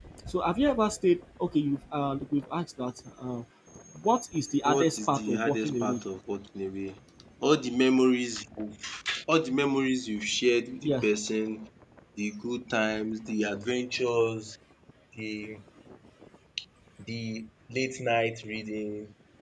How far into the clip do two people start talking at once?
4.7 s

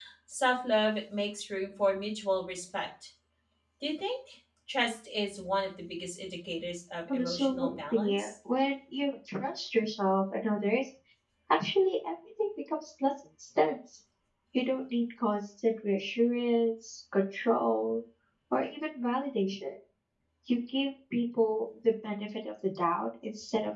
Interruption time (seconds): 7.1 s

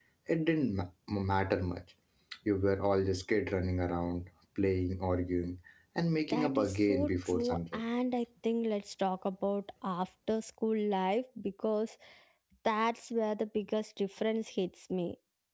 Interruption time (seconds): 6.3 s

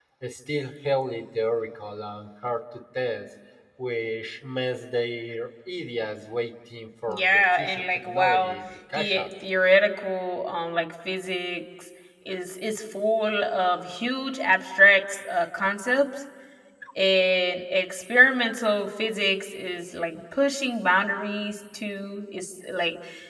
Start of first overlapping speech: 7.1 s

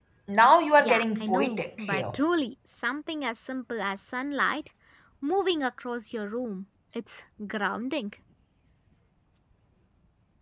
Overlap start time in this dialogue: 0.8 s

